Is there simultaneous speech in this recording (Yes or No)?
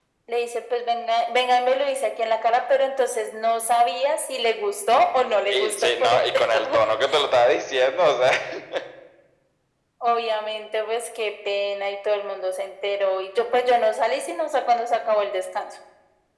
Yes